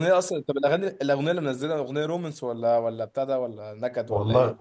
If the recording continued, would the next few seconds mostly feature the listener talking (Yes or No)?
Yes